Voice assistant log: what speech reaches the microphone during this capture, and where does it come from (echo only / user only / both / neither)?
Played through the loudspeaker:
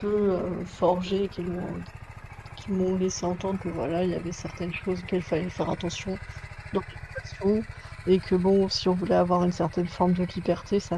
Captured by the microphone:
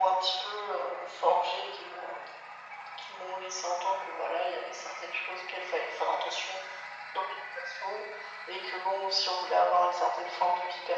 echo only